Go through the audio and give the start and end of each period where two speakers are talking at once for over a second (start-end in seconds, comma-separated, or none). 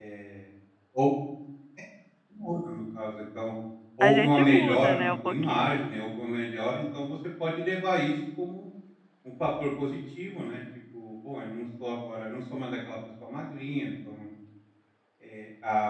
4.0-5.9